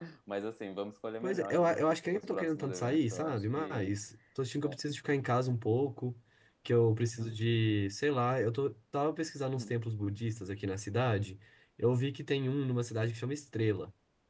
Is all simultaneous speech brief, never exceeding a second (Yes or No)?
No